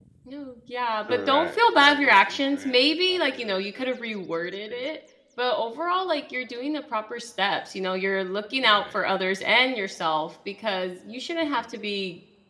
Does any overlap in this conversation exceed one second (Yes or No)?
Yes